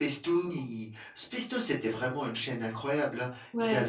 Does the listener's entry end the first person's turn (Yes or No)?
No